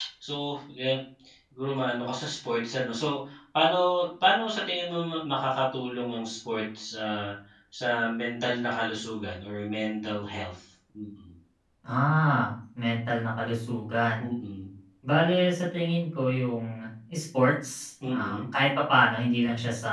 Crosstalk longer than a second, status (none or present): none